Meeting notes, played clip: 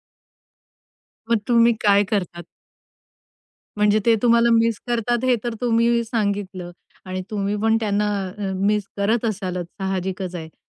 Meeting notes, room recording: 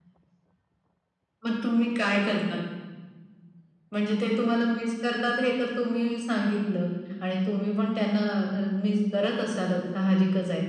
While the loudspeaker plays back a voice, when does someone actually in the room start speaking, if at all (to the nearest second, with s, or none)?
none